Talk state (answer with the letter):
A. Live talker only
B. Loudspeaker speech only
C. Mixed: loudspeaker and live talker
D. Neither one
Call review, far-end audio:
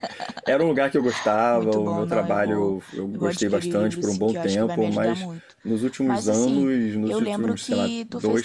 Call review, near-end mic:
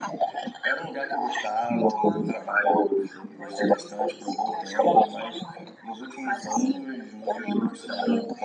B